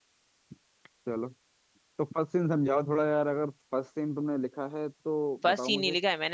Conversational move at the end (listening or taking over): taking over